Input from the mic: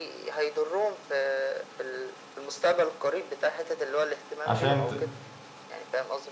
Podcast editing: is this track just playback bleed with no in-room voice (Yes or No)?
No